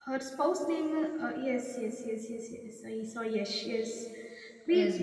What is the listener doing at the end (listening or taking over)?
listening